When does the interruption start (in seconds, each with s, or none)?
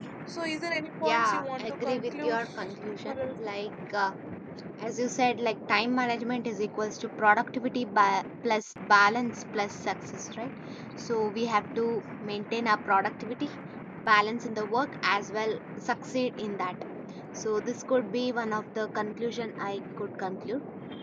1.0 s